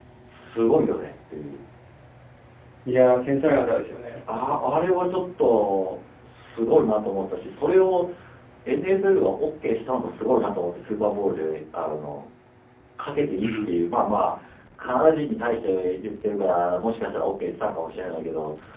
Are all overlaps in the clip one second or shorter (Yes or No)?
Yes